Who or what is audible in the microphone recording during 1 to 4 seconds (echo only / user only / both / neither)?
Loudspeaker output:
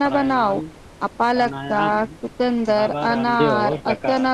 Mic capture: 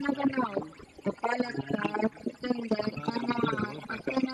echo only